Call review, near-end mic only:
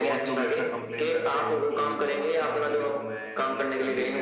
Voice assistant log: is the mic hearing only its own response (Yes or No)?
No